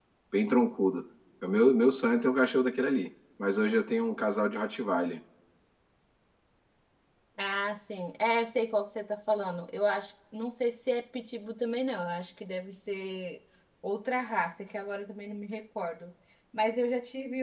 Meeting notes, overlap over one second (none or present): none